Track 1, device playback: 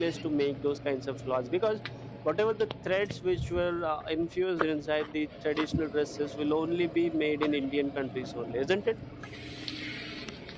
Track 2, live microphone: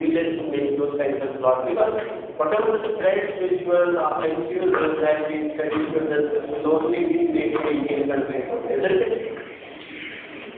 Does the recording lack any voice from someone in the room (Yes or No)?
No